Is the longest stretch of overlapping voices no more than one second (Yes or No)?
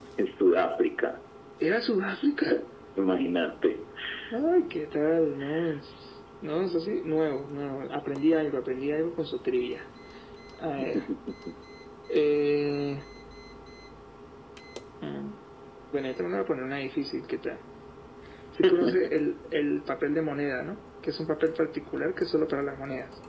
Yes